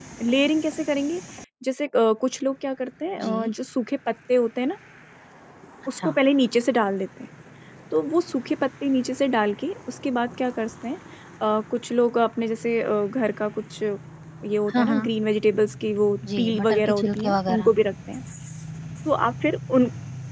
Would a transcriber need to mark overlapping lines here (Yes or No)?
Yes